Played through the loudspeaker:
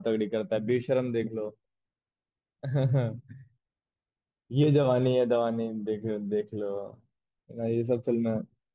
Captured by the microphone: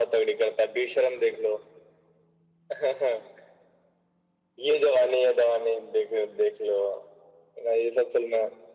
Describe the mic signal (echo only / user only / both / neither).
echo only